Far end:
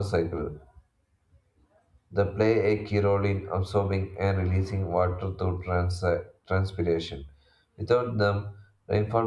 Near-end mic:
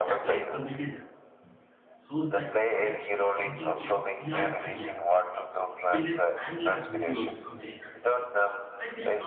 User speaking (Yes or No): Yes